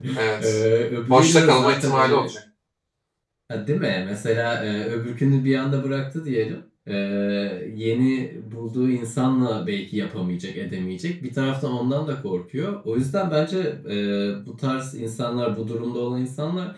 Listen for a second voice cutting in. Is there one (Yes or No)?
Yes